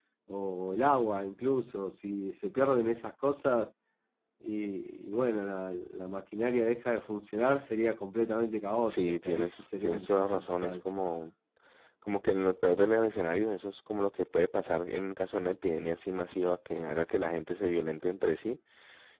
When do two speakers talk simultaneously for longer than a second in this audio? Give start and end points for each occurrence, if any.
8.9-10.8

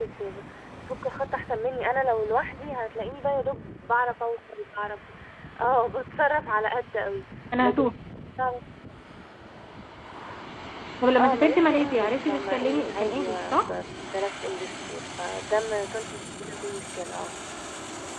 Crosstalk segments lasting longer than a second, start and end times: 11.2-13.7

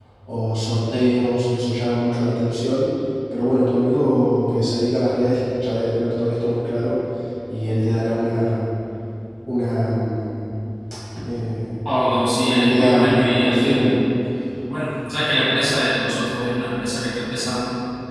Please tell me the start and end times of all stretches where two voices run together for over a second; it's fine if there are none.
12.4-14.0

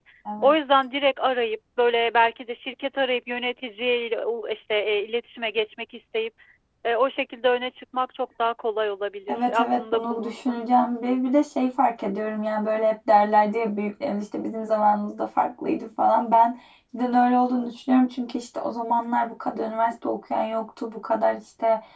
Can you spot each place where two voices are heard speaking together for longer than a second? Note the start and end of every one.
9.3-10.6

